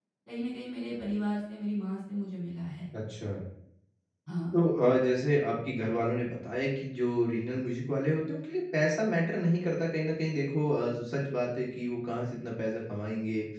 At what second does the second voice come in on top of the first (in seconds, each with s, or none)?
none